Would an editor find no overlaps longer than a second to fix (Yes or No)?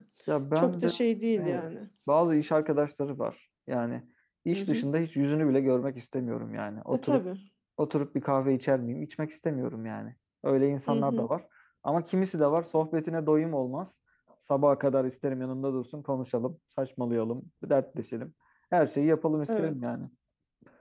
Yes